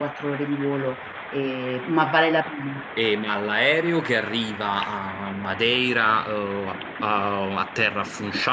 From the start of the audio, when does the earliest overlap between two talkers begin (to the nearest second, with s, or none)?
none